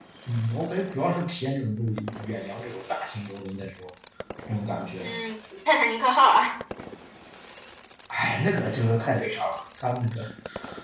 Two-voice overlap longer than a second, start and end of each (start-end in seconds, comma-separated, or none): none